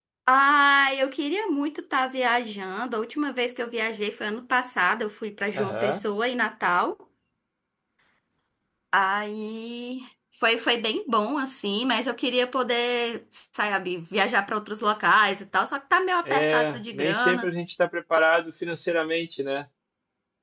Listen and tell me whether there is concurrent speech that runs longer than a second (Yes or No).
Yes